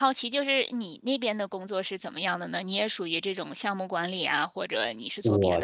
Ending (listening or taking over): taking over